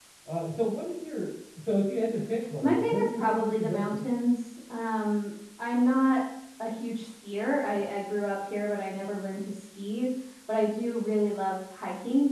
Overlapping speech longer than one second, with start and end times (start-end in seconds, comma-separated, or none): 2.6-3.8